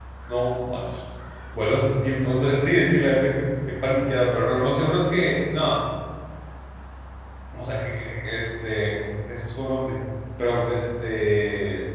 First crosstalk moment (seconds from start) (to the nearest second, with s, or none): none